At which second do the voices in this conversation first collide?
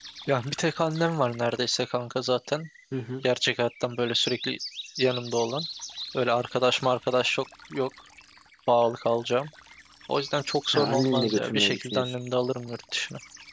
10.7 s

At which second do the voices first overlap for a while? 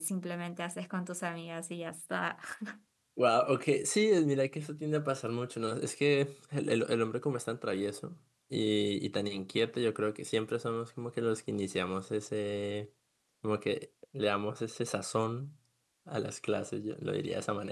none

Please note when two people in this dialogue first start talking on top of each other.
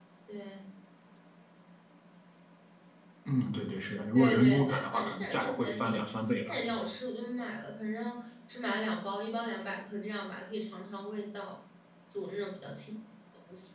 4.2 s

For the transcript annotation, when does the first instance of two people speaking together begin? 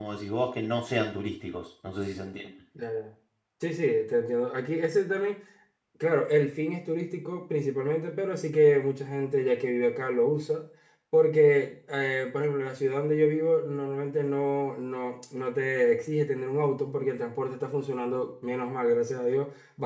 none

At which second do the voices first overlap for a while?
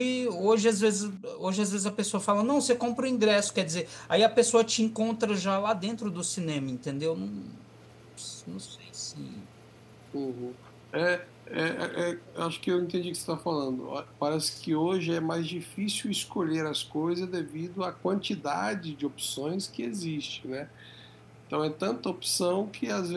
none

